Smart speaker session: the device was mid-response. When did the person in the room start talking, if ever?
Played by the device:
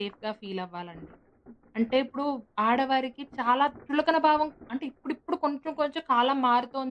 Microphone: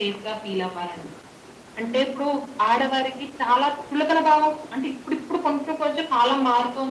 none

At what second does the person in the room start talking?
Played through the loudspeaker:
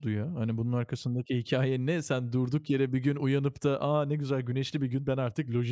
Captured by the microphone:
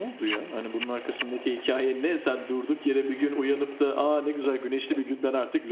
none

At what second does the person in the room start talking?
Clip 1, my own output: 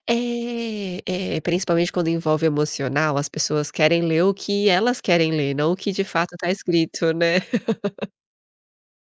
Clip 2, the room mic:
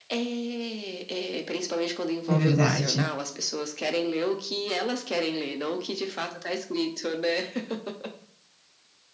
2.3 s

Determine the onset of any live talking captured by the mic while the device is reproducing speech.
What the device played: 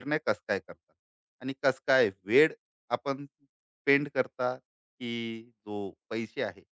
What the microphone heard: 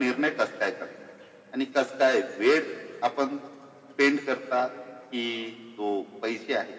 none

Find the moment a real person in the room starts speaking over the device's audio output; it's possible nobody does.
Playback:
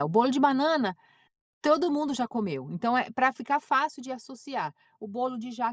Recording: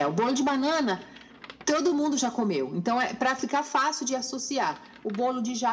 none

